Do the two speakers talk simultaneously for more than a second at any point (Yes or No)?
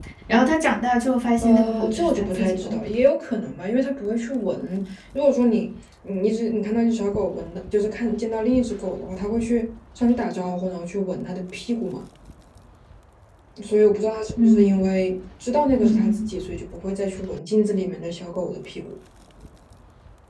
Yes